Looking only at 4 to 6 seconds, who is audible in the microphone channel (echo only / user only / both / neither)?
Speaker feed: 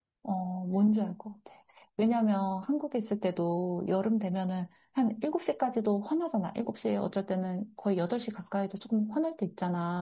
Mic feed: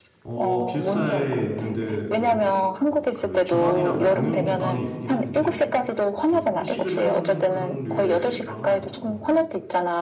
both